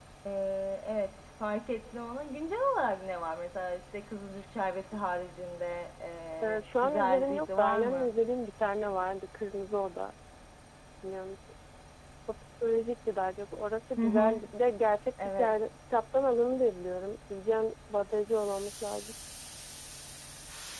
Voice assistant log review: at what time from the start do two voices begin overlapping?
6.4 s

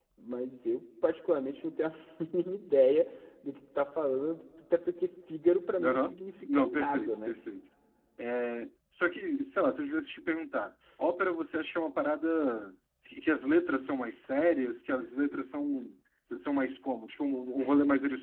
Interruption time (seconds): 5.8 s

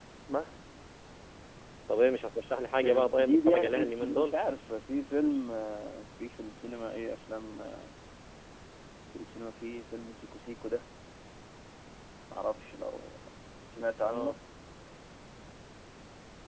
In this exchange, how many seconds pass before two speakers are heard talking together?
2.8 s

